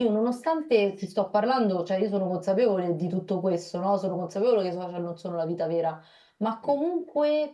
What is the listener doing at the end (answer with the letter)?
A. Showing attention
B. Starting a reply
A